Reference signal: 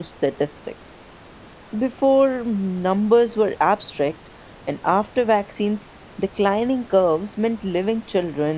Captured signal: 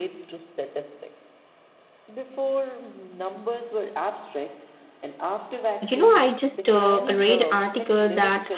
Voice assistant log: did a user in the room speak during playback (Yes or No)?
Yes